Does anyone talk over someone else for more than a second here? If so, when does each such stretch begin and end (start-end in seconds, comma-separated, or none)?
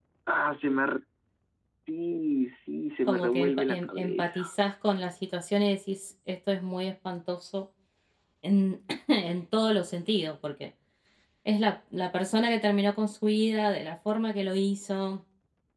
3.1-4.5